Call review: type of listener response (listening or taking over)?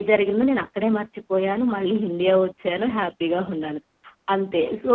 listening